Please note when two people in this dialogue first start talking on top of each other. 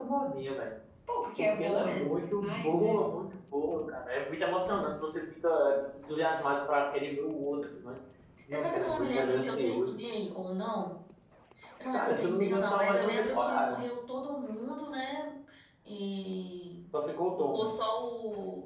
1.4 s

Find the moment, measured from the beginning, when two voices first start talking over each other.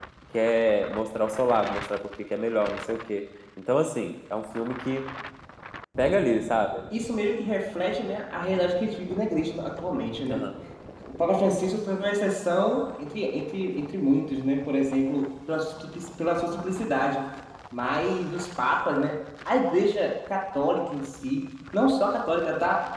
none

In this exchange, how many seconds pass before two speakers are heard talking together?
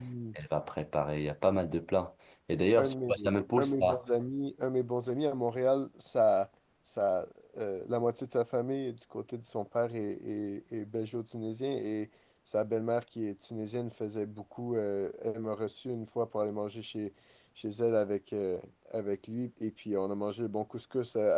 2.8 s

